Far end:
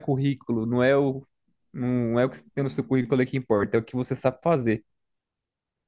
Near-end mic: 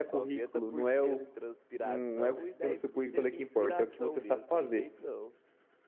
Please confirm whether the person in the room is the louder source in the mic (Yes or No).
No